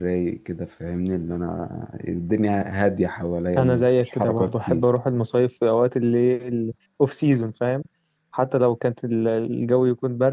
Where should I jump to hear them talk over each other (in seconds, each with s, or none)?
3.6 s